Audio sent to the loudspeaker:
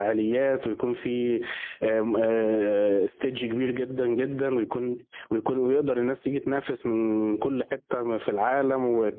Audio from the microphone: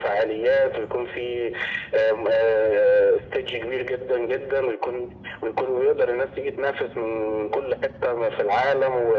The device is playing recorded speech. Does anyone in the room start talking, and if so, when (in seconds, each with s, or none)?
none